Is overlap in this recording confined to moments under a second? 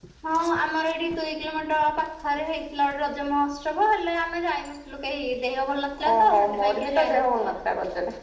No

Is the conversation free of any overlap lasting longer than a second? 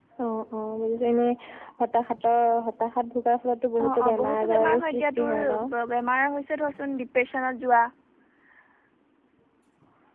No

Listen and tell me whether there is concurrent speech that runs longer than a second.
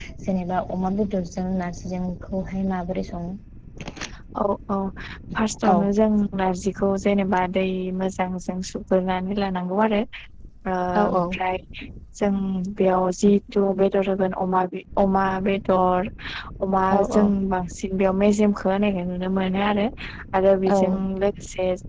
No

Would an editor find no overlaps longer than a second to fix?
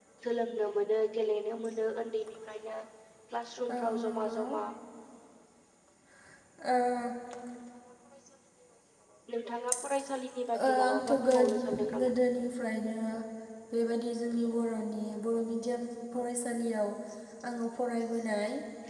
No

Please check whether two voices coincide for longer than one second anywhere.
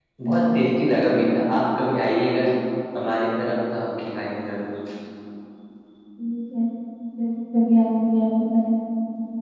No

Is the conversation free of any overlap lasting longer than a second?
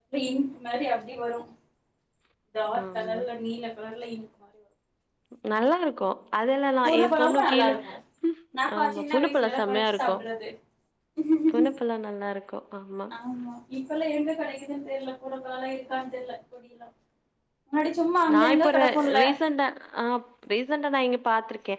No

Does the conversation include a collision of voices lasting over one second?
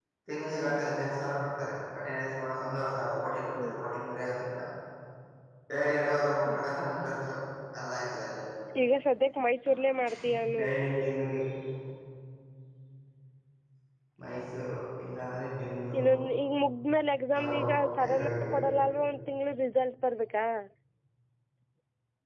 Yes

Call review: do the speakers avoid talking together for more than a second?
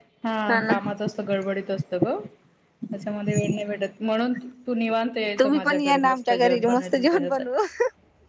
No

